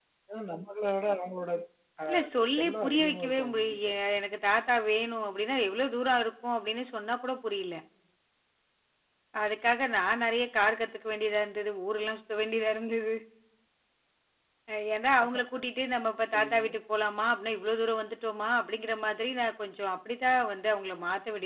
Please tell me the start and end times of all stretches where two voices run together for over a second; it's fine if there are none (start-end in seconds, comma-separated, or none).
2.1-3.9